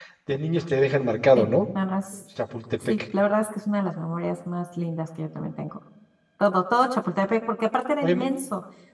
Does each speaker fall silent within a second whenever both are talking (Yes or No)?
Yes